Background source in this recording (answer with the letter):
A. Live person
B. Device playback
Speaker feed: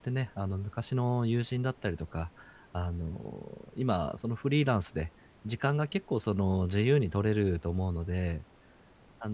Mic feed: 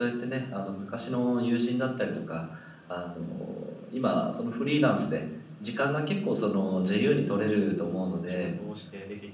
A